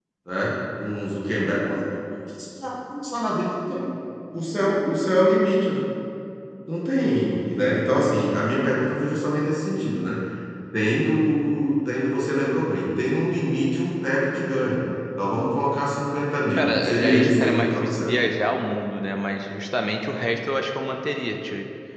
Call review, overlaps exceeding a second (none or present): present